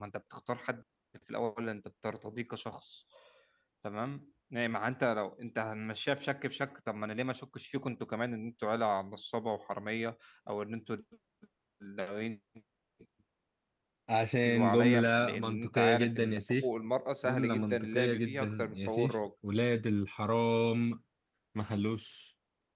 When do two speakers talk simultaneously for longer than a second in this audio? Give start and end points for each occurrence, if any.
14.4-16.7, 17.2-19.1

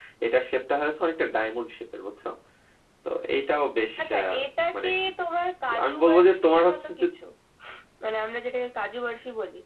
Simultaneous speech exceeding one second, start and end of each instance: 5.8-7.0

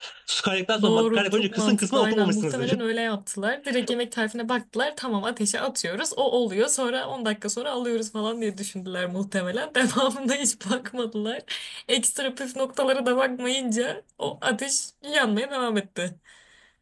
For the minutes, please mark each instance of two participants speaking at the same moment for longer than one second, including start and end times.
0.8-2.8

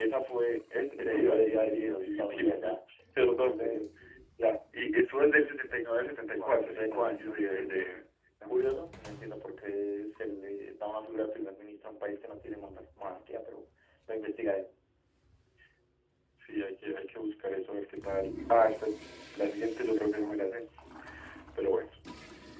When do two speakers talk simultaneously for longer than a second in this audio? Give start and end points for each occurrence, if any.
1.0-2.8, 6.2-7.9

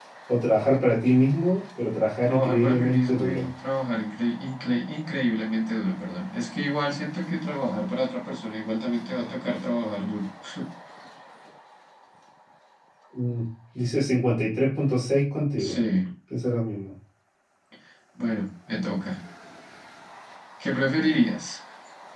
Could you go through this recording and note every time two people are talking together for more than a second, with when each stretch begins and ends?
2.2-3.5

